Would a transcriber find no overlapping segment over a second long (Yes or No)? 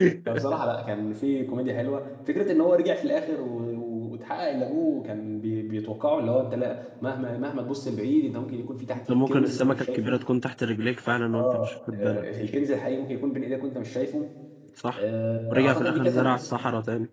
No